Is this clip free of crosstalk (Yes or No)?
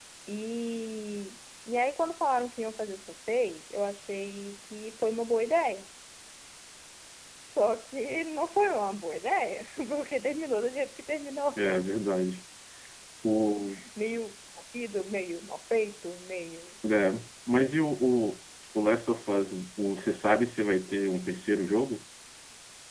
Yes